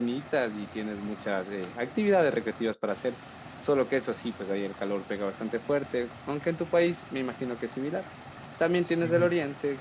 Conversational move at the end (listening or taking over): listening